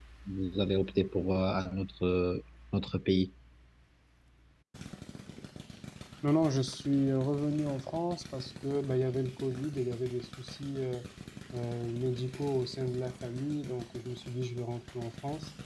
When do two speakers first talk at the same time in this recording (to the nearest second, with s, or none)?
none